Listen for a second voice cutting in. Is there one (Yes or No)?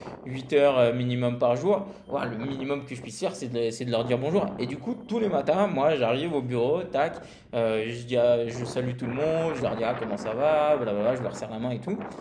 No